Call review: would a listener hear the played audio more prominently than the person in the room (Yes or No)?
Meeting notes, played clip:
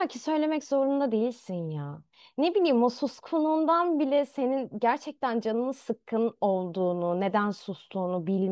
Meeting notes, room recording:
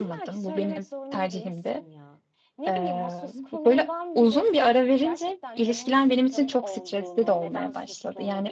No